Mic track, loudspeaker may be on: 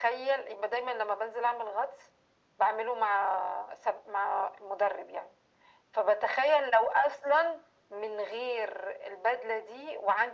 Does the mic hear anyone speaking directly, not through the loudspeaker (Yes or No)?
No